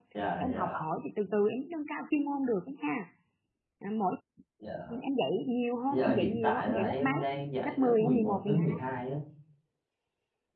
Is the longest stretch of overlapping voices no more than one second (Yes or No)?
No